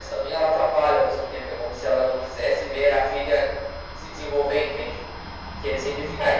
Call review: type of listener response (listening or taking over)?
taking over